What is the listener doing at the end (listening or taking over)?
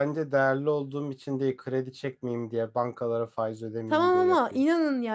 taking over